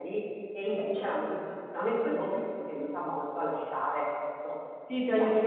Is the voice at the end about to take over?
Yes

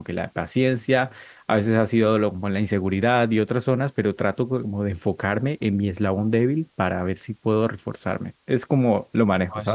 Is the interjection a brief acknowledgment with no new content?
No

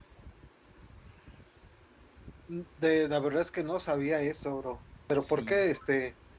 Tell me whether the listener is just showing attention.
Yes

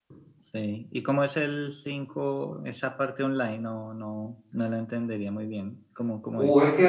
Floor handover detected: Yes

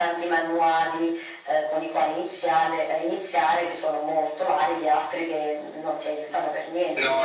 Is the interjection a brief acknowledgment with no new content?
No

